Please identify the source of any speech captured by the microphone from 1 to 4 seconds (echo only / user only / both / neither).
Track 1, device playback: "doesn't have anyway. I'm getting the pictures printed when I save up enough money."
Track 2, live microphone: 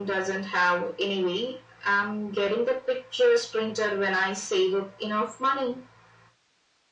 echo only